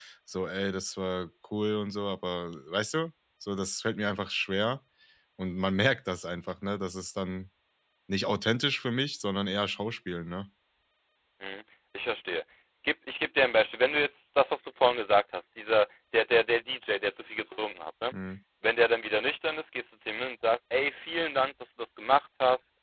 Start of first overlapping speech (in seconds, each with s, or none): none